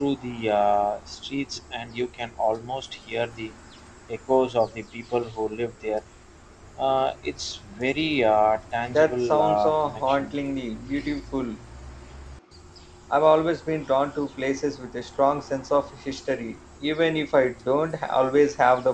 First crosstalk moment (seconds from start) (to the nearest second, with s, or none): 9 s